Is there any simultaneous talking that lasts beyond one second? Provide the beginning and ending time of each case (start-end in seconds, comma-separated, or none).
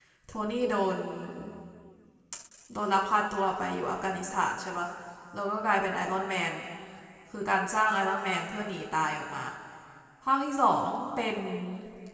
none